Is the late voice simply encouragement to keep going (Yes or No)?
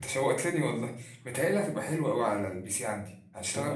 Yes